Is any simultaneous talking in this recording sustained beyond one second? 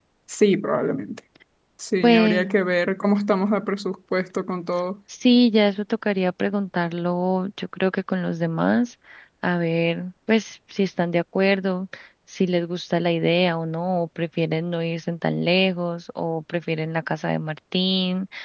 No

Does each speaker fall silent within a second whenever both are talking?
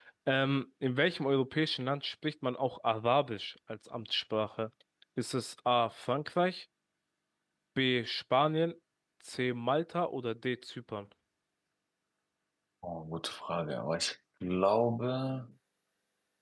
Yes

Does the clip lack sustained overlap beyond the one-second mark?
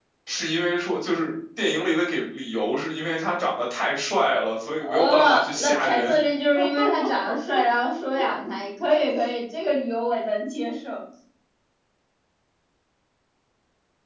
No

